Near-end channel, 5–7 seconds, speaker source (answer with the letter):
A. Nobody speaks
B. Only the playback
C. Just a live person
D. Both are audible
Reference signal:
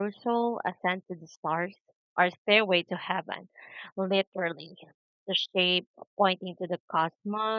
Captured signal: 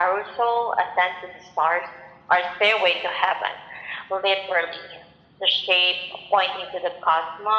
B